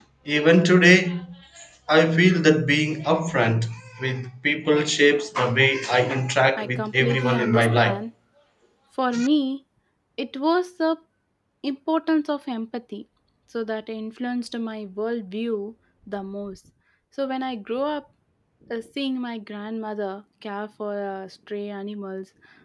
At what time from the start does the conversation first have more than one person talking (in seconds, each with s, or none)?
6.5 s